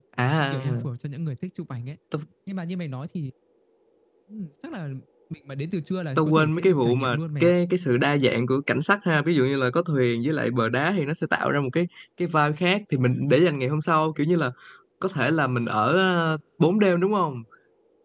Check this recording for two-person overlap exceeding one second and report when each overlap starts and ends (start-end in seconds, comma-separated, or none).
6.2-7.5